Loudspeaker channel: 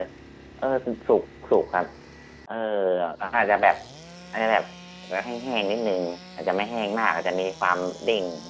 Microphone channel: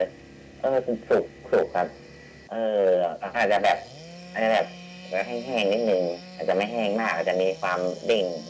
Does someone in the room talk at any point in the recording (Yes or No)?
No